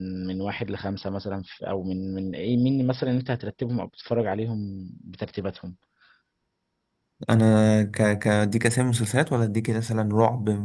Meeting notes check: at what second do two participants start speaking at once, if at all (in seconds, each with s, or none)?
none